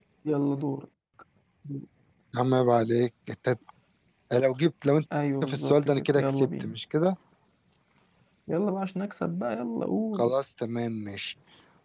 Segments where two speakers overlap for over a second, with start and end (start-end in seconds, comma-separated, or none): 5.5-6.7